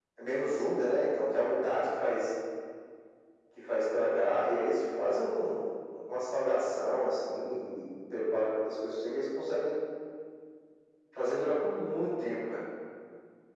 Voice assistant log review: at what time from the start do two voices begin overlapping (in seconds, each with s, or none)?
none